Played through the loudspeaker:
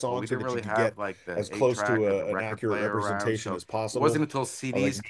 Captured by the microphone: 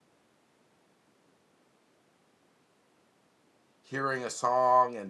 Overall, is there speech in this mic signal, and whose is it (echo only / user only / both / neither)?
user only